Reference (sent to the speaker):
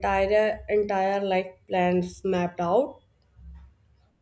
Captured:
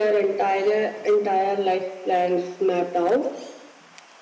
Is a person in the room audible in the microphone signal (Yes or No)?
No